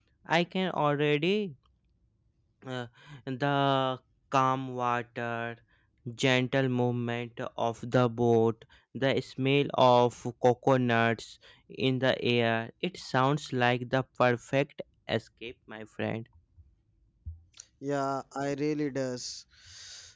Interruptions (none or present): none